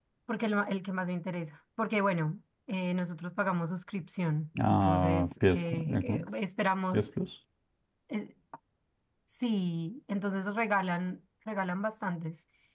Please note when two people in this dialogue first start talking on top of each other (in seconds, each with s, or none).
4.5 s